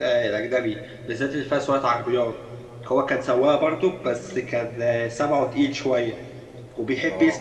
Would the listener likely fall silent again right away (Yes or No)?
Yes